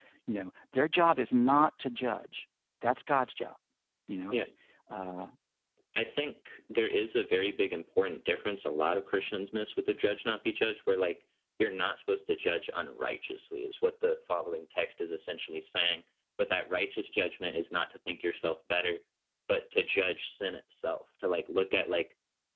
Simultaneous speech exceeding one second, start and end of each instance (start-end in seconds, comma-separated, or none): none